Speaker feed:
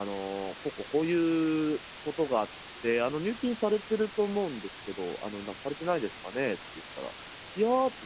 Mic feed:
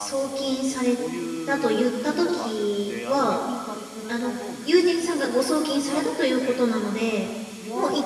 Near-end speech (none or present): present